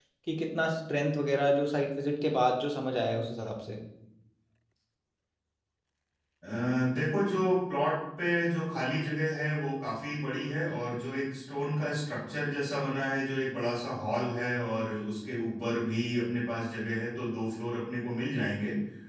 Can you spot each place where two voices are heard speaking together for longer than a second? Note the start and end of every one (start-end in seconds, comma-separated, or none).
none